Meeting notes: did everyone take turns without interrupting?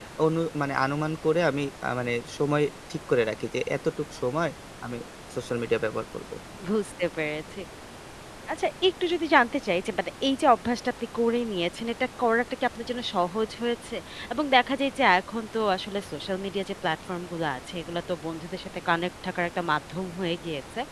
Yes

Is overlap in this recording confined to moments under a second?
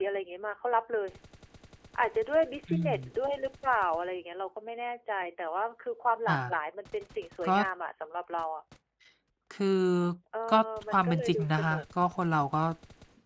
No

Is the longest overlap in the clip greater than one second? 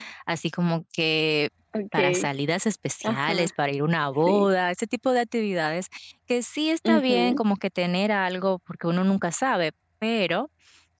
No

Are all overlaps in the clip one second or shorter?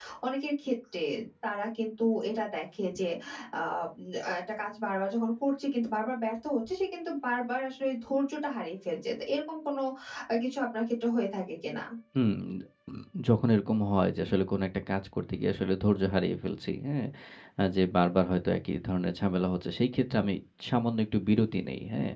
Yes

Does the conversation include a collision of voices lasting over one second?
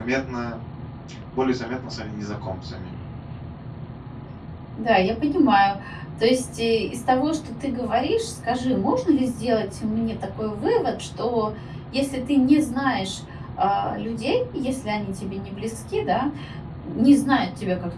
No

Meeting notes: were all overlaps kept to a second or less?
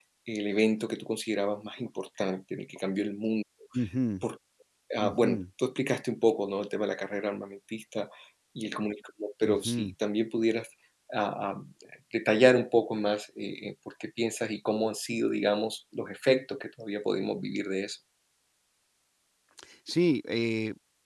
Yes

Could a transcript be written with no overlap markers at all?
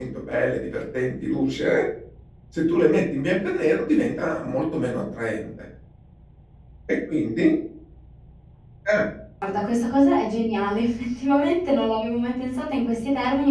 Yes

